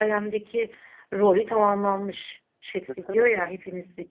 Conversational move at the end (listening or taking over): listening